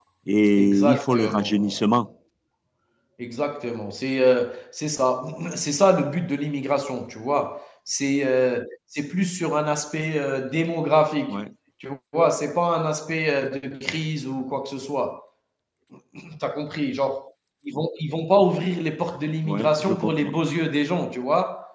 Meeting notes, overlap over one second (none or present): present